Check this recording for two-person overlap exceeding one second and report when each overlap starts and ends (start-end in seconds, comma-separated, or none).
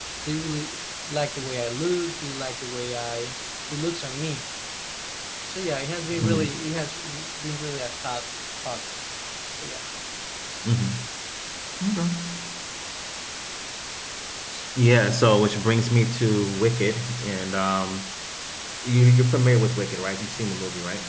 none